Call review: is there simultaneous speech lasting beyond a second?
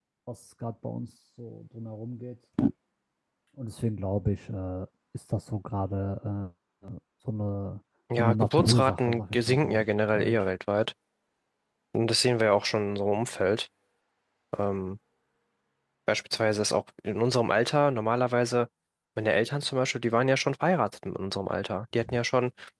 Yes, from 8.1 s

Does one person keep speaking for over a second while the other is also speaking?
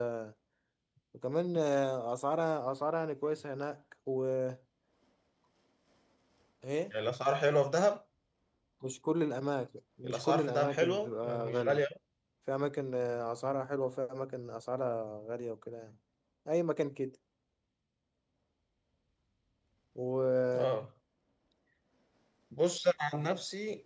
Yes, from 10.0 s

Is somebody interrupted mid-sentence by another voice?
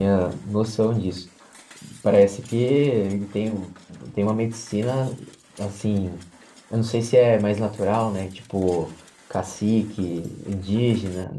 No

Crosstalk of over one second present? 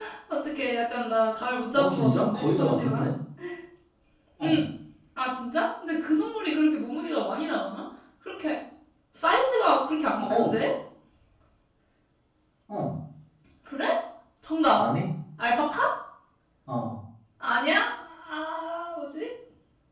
Yes, from 1.8 s

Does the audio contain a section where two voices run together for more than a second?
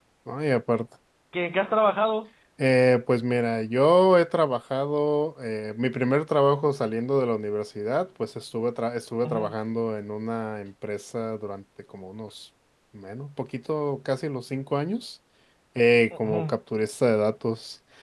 No

